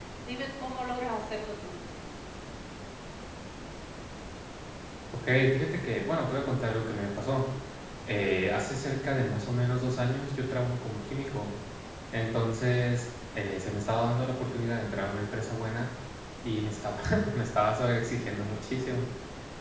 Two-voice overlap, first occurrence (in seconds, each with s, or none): none